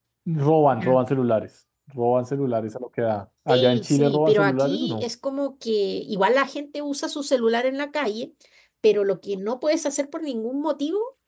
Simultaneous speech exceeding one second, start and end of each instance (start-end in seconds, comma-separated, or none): 3.5-5.0